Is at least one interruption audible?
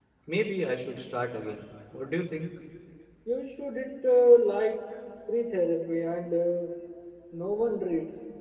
No

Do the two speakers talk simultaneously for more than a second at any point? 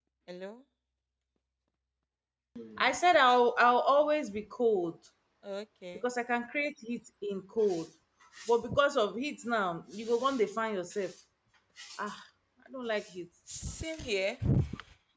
No

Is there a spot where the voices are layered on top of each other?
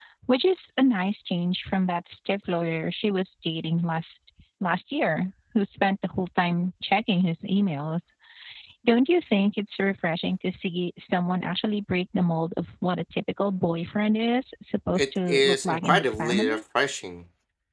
Yes, from 14.9 s

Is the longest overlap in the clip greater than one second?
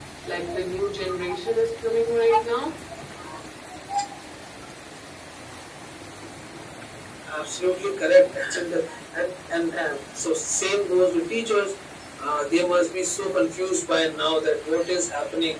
No

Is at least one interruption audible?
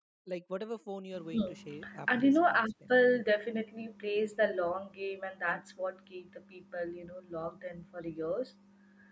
Yes, from 1.3 s

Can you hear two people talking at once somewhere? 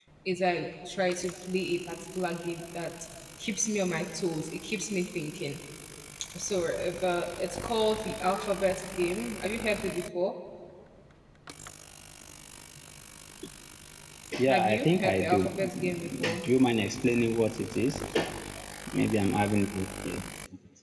Yes, from 14.5 s

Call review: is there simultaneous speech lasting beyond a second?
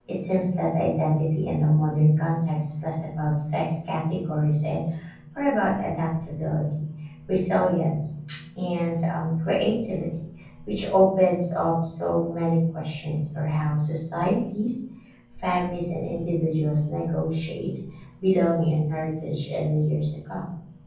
No

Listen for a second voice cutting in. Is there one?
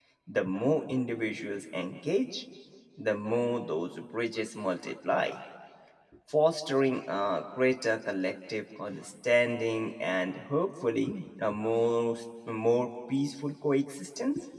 No

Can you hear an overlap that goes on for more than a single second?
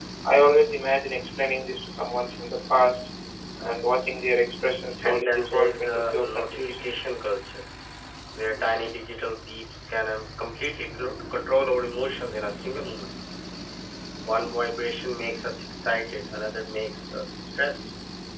Yes, from 5.0 s

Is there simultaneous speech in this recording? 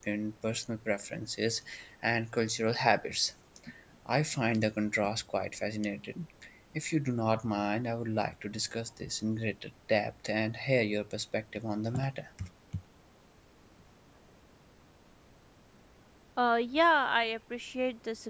No

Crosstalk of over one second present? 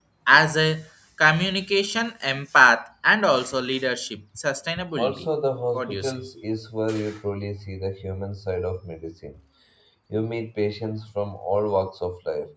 No

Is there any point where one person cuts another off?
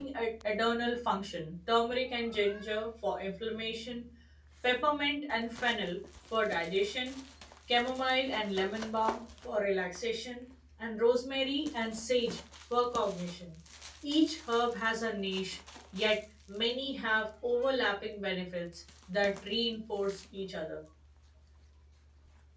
No

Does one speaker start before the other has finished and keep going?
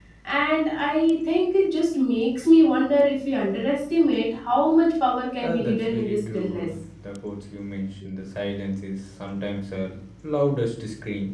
Yes, from 5.4 s

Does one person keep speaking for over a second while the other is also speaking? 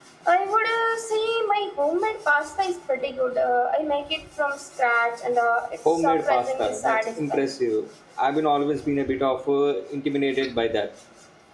Yes, from 5.8 s

